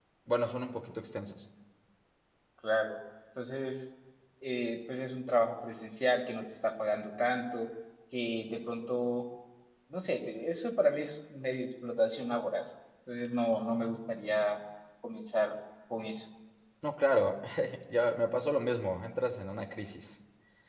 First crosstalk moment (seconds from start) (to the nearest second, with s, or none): none